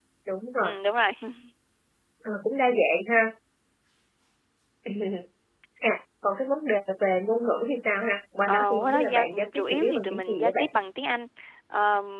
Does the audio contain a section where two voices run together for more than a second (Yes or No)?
Yes